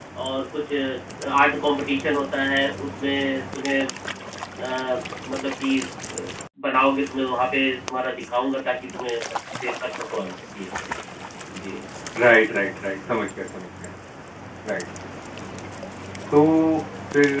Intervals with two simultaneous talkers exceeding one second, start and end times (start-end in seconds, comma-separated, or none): none